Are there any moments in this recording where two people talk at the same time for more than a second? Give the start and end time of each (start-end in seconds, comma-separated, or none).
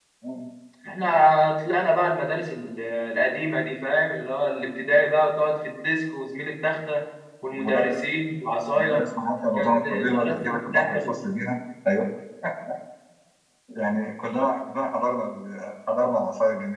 9.5-11.2